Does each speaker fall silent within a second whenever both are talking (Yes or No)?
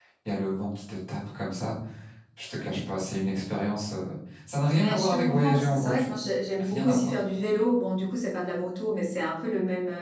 No